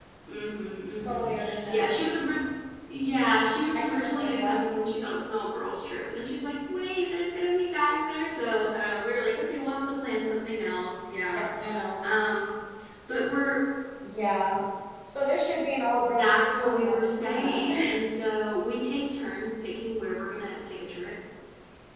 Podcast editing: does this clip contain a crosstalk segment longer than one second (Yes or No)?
Yes